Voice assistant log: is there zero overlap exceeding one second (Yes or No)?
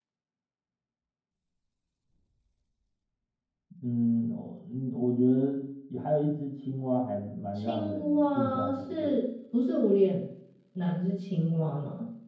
No